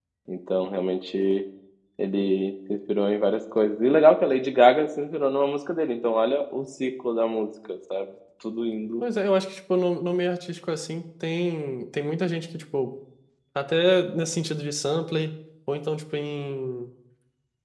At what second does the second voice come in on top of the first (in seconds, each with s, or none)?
none